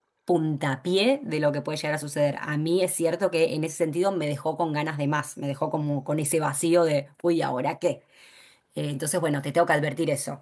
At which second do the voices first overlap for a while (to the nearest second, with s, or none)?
none